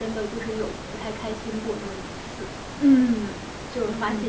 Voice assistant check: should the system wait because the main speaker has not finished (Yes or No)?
No